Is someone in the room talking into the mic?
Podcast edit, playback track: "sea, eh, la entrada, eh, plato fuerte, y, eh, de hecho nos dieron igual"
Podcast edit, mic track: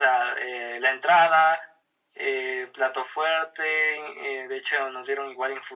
No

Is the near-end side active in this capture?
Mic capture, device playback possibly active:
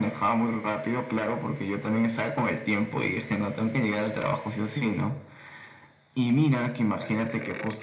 Yes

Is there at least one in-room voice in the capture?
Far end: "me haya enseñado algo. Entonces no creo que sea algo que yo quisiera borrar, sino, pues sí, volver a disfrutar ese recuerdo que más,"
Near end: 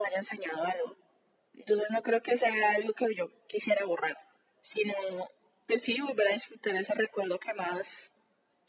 No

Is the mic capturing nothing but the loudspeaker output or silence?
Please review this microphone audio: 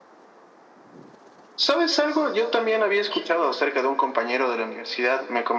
Yes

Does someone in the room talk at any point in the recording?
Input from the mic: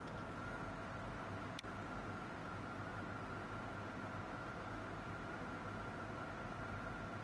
No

